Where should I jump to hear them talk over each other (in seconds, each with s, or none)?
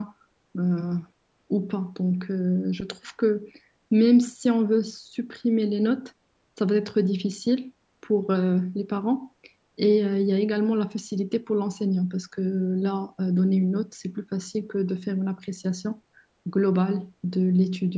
none